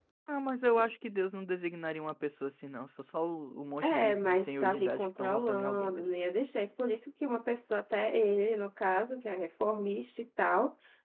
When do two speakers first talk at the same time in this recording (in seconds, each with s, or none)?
3.8 s